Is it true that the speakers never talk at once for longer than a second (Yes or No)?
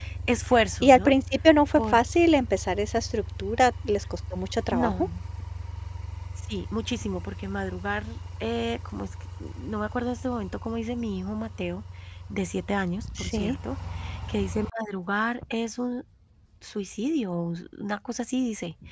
Yes